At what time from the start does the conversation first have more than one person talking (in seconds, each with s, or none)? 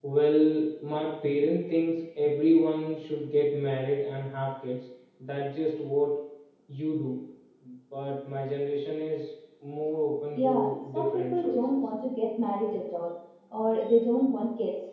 10.4 s